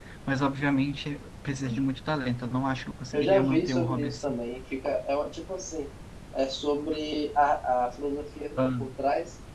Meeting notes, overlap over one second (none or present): present